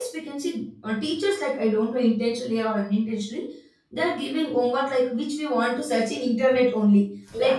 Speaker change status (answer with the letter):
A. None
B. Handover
A